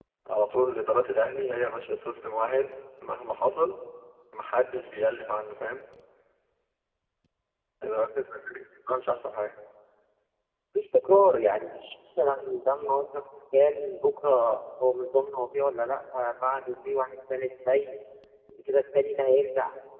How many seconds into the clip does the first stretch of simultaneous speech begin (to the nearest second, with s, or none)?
none